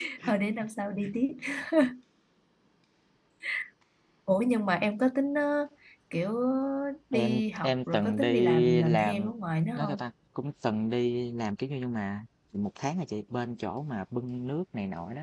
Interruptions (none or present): present